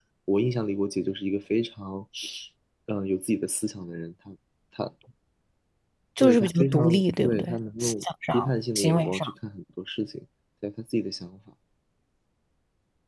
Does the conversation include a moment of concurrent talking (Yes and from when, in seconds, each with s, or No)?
Yes, from 6.2 s